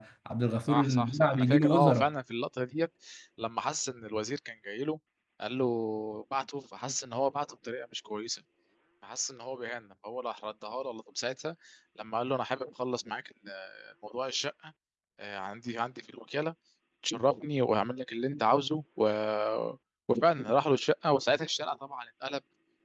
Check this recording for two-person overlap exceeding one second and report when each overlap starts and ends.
0.7-2.1

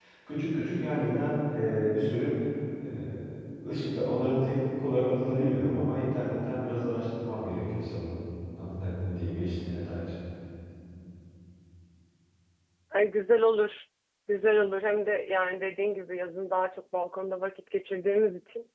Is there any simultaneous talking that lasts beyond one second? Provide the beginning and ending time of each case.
none

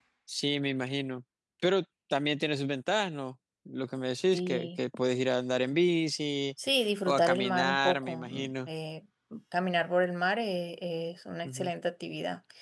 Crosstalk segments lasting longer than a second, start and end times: 7.1-8.7

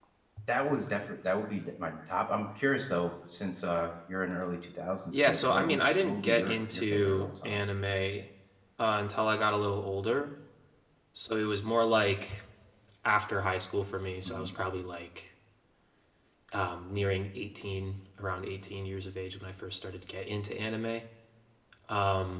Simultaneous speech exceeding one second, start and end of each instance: 5.1-7.6

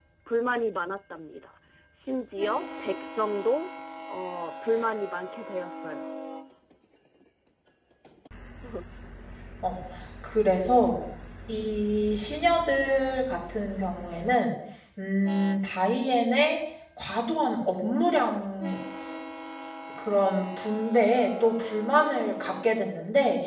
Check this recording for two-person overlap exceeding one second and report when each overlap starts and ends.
none

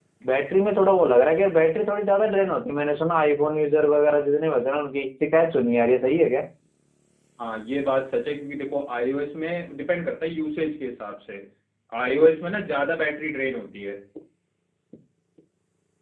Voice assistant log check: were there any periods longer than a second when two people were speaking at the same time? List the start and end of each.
none

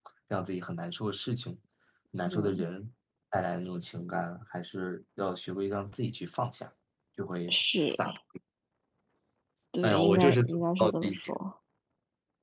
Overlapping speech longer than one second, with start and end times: 9.8-11.3

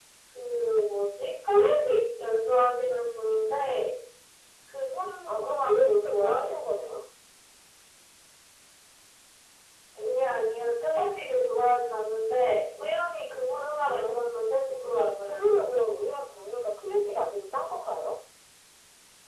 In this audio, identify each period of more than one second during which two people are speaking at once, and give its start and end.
5.3-6.5, 13.8-15.5

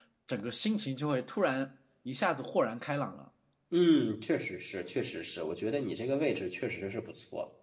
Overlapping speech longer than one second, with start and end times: none

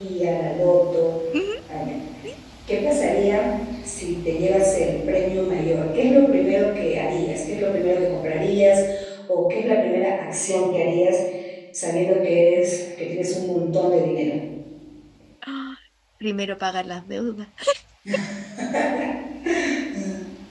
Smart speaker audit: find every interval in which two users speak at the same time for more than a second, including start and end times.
none

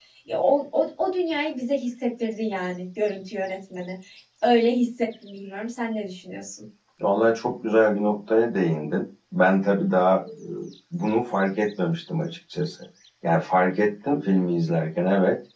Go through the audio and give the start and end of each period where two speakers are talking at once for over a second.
none

